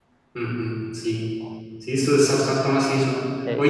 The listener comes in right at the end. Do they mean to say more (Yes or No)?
No